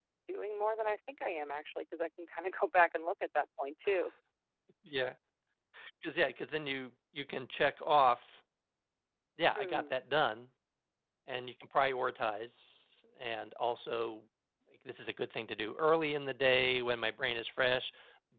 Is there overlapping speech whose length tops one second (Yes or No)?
No